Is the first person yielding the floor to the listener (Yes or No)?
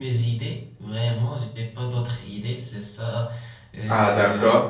Yes